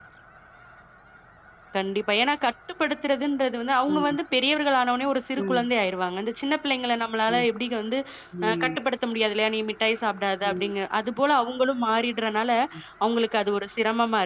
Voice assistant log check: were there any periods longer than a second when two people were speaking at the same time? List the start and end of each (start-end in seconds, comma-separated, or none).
none